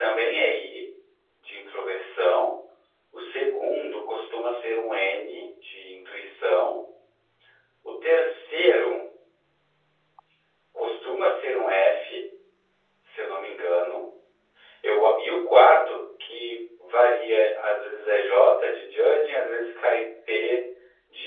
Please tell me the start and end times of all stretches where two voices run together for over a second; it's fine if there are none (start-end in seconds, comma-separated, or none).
none